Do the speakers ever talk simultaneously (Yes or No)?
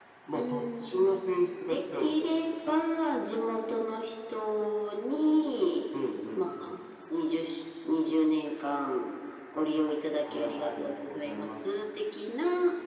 Yes